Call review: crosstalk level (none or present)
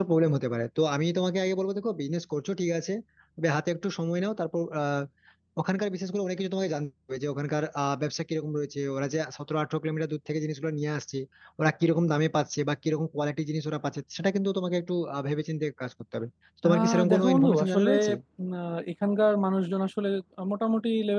present